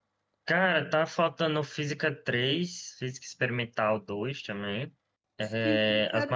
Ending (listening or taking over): taking over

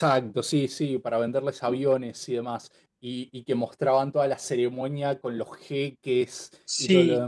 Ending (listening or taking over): taking over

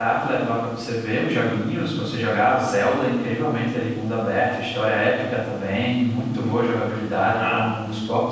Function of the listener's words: listening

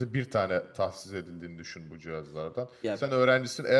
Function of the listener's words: listening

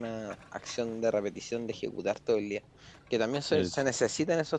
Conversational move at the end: listening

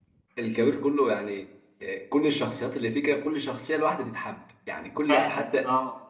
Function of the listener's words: taking over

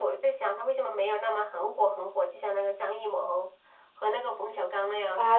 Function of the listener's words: taking over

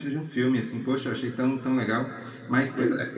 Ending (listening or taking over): listening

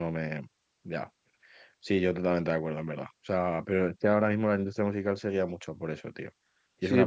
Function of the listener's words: taking over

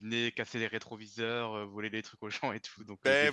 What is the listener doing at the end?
taking over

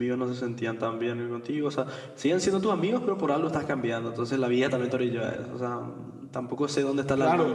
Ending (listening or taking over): taking over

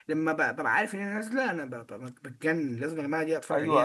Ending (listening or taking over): taking over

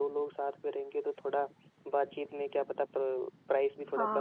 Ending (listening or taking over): taking over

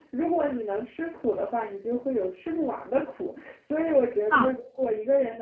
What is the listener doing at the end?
listening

